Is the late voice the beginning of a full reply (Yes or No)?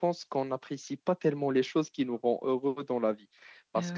No